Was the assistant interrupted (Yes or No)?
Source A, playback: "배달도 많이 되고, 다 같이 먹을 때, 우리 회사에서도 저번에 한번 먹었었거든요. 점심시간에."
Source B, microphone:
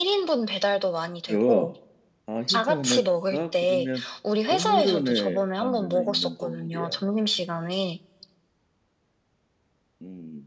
Yes